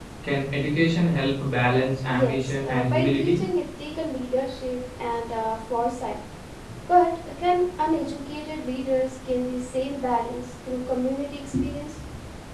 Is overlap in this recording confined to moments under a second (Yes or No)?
No